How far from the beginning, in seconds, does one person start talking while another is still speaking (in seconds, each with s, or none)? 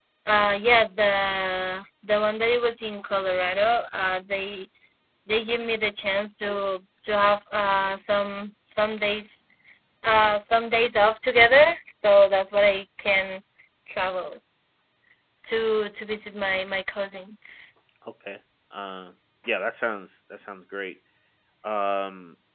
none